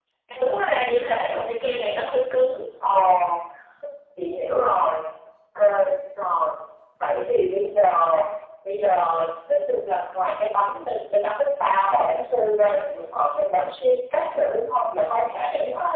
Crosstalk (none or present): none